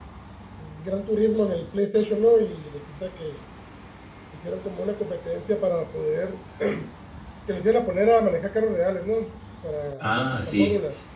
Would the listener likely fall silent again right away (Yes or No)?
No